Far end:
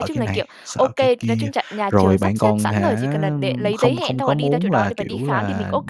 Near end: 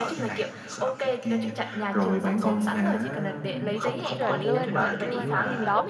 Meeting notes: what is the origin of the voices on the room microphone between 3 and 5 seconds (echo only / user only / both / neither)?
both